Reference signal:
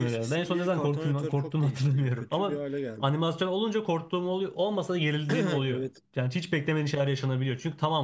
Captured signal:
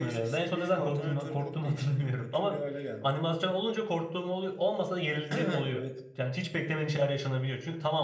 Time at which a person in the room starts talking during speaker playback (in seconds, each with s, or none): none